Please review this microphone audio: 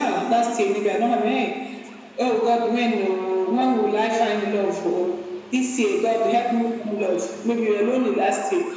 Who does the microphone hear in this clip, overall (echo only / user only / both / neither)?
echo only